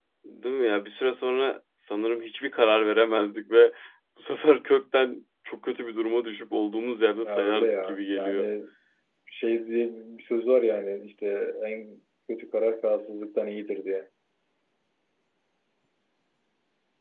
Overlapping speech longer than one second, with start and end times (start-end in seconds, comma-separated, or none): 7.2-8.5